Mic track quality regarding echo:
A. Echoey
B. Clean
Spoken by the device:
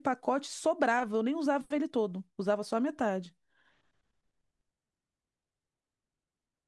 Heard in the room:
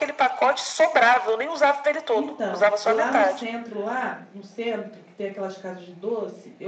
A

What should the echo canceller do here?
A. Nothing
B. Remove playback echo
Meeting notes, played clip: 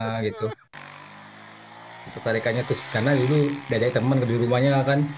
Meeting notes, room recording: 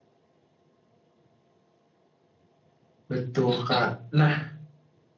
A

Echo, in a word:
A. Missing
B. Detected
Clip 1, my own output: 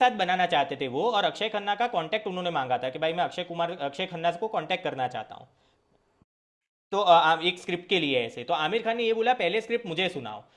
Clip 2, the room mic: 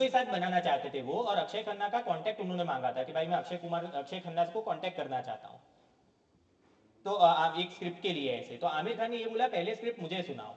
B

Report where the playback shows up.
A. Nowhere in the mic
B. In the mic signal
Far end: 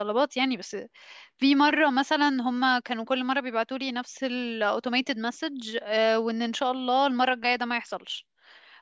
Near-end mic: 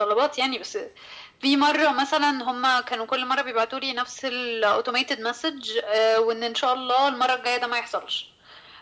B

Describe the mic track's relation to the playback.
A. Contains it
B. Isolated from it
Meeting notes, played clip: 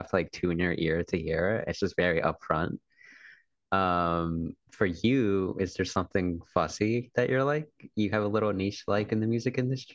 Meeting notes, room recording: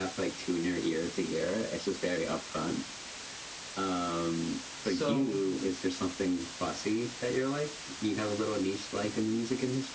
A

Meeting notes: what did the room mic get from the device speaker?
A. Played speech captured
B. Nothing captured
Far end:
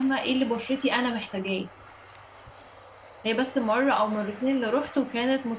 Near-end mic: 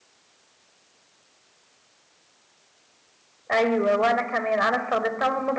B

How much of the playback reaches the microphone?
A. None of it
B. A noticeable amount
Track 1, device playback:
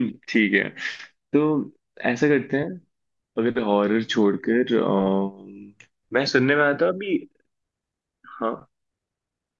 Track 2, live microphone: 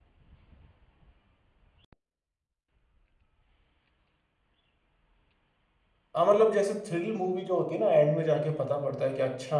A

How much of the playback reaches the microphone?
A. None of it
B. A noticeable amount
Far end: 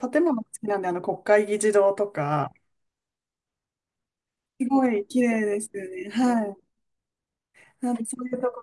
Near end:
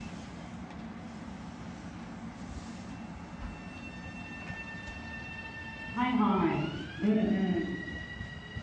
A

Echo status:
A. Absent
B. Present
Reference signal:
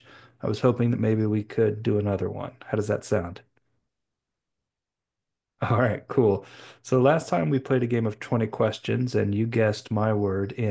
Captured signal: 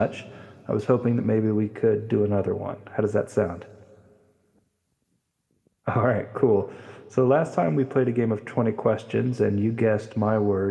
B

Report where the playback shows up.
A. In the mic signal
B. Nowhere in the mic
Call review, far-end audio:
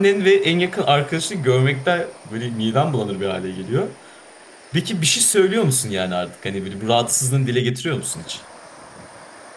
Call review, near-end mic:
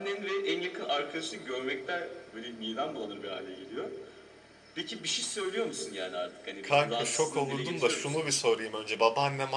A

